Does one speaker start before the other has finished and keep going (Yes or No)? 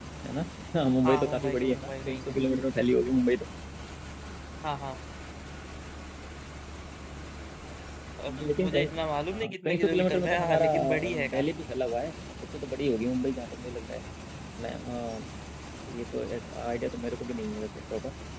Yes